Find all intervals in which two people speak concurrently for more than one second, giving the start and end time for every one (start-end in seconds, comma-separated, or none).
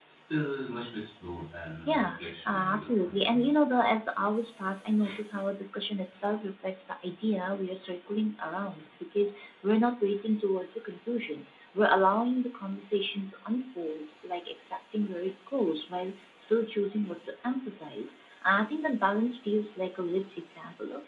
1.9-3.6